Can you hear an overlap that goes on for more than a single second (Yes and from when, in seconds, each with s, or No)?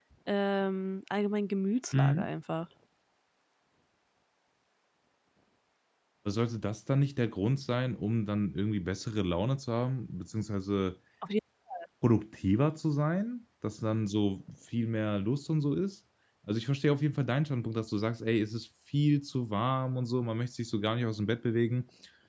No